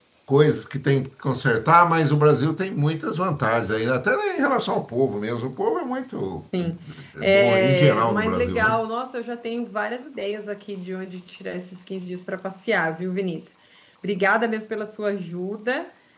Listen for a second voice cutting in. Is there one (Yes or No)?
Yes